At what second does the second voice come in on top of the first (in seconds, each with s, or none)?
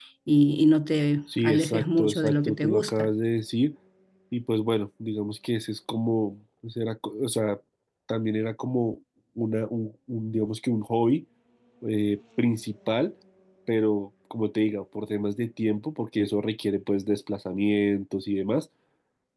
1.3 s